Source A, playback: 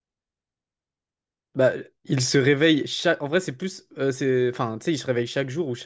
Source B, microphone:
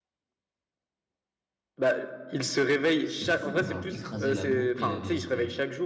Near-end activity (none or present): present